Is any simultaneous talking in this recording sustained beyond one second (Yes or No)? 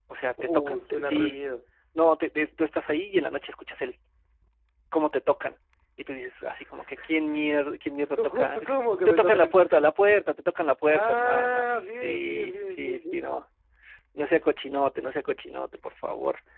Yes